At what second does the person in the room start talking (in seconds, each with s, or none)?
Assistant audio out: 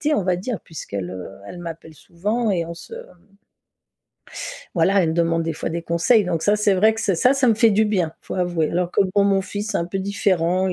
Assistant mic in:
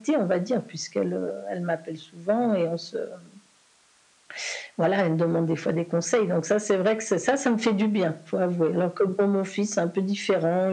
none